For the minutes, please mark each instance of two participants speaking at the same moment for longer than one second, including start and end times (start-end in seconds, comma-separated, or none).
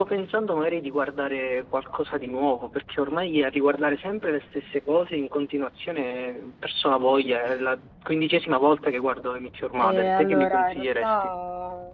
9.8-11.3